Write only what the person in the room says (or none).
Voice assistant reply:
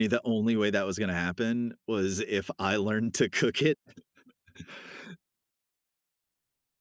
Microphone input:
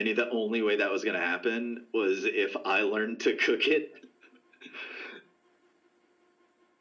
none